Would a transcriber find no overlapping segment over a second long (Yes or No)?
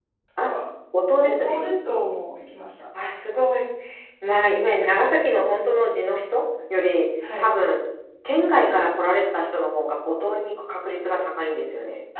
Yes